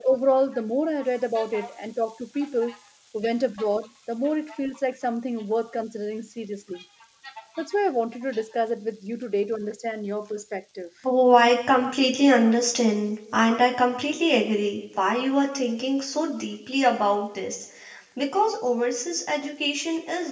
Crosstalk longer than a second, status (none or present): none